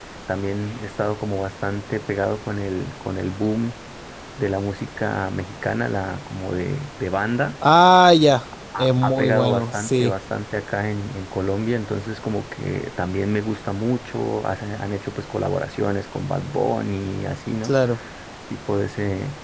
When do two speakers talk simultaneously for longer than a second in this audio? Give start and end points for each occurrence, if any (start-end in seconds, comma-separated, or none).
8.8-10.1